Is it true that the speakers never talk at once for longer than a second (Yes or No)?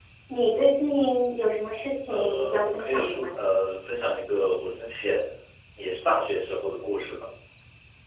No